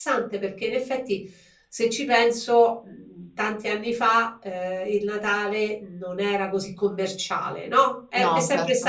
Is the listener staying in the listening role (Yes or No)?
Yes